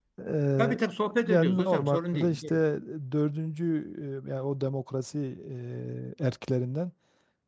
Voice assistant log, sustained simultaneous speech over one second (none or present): present